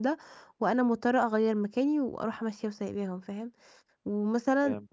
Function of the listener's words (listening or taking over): listening